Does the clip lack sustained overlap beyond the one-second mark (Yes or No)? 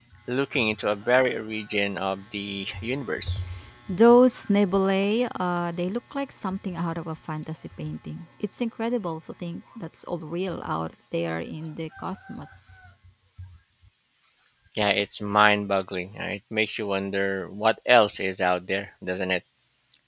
Yes